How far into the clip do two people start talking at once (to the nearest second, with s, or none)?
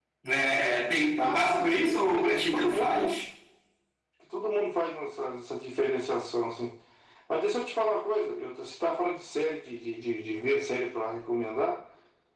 1 s